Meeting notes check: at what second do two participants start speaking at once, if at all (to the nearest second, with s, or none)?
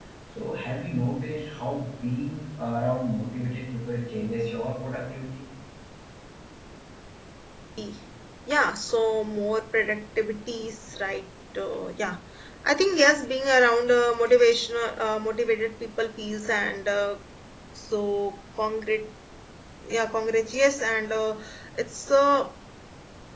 none